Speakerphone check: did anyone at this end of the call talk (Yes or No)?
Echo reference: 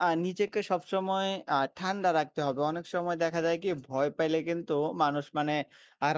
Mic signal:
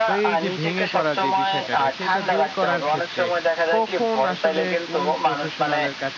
Yes